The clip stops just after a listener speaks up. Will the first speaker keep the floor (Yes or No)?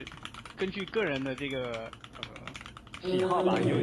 No